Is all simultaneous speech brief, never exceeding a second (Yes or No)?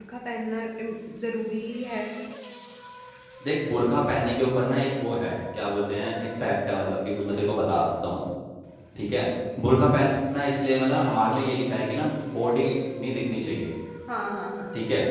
Yes